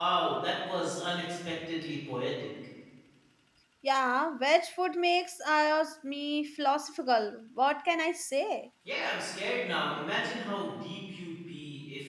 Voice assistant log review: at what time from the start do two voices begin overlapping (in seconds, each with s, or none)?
none